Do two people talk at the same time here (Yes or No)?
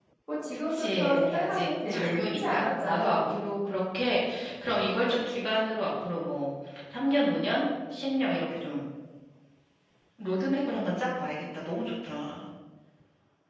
Yes